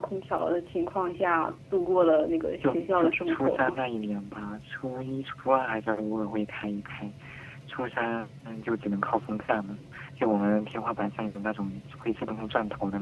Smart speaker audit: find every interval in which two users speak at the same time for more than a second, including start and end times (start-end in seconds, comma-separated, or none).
2.6-3.8